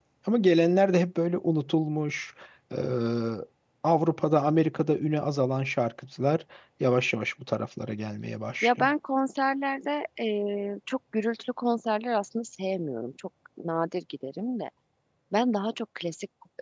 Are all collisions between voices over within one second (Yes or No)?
Yes